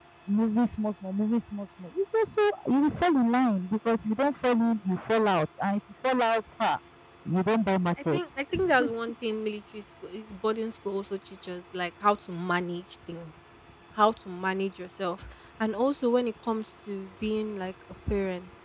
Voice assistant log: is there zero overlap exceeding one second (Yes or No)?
Yes